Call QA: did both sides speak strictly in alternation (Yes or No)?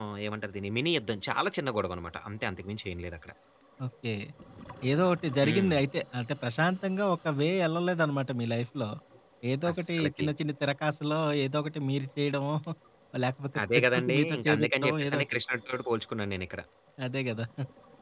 No